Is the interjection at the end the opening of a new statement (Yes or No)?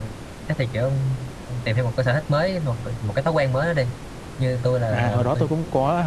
Yes